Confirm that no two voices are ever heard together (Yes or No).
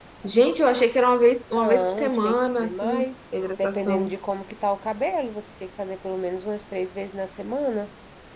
No